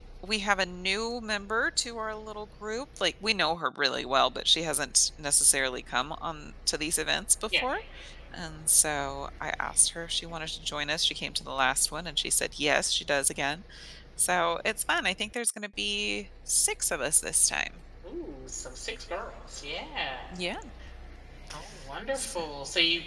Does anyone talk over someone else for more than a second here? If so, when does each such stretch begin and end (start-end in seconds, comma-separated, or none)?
none